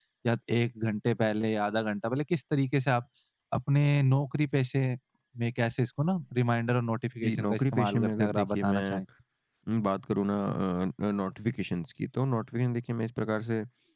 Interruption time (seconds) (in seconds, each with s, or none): 7.2 s